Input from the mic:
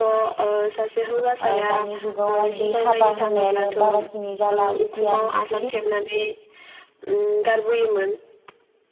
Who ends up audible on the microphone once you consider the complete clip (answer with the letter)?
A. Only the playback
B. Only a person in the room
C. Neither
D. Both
D